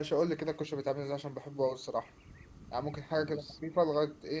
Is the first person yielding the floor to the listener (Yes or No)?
No